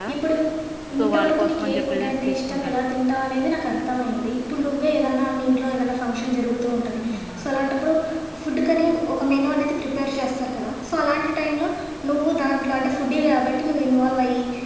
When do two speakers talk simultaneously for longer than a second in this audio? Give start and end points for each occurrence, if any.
1.0-2.8

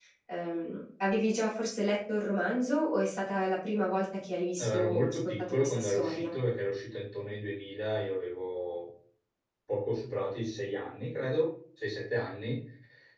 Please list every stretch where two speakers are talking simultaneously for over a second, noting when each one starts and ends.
4.6-6.3

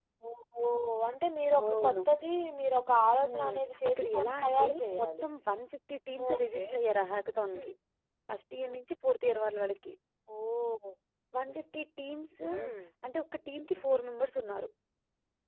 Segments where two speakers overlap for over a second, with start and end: 3.2-5.2

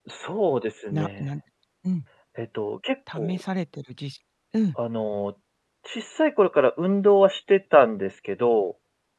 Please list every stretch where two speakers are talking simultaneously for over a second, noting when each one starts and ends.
none

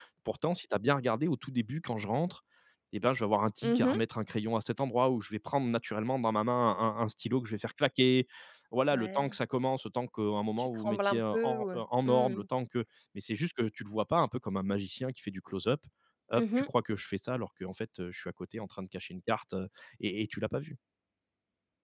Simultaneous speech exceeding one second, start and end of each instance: 10.6-12.4

